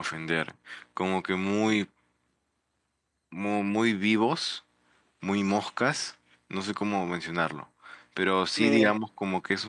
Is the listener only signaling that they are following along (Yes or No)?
Yes